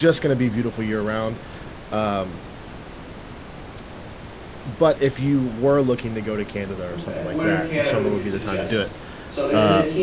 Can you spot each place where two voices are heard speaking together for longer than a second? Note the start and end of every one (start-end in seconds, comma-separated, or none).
6.9-8.8